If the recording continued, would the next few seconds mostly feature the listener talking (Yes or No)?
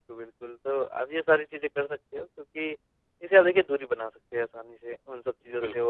No